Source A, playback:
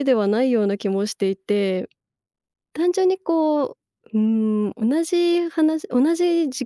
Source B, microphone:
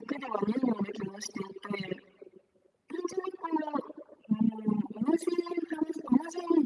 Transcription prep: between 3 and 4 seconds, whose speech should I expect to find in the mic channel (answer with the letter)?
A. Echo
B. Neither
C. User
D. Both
A